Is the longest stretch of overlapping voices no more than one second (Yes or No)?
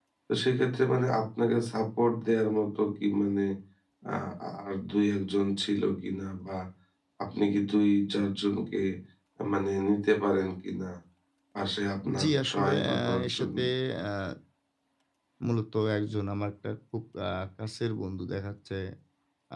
No